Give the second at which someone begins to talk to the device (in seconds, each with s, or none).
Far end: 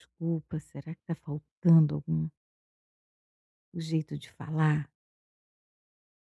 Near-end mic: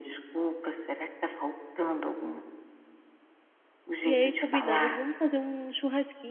4.0 s